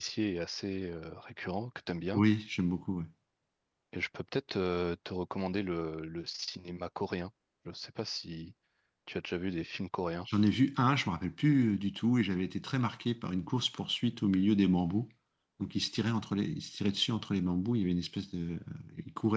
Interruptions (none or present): none